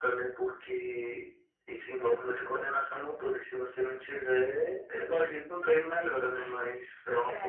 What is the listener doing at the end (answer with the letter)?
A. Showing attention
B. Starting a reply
B